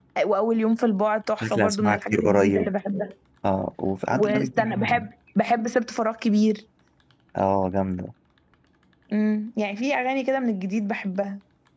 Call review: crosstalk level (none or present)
present